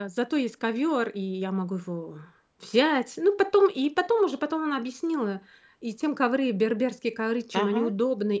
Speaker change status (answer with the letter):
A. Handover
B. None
B